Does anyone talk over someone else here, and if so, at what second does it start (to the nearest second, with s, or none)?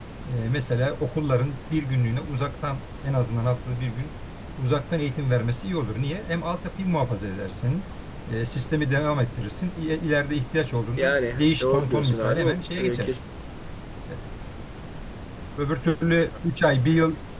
11 s